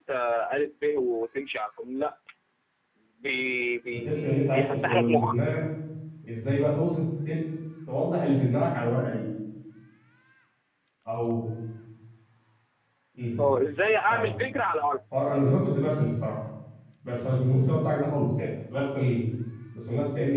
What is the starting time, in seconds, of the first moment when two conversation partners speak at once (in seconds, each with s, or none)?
3.9 s